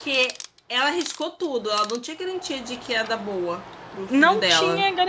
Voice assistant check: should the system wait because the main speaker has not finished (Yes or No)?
No